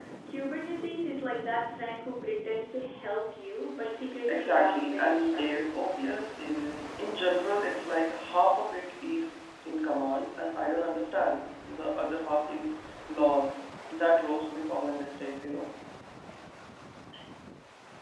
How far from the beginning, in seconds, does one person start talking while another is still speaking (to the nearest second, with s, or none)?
4 s